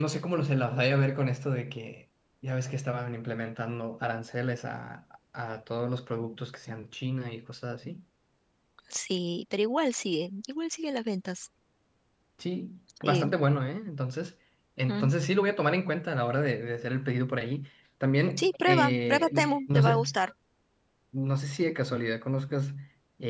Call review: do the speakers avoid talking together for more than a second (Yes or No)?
No